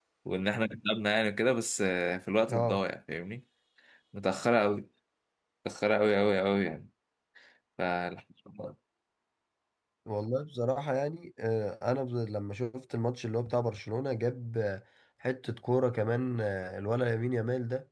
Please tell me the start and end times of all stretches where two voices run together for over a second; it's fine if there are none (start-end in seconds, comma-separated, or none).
none